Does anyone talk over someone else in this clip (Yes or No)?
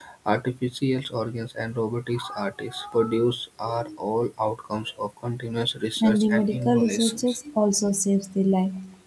Yes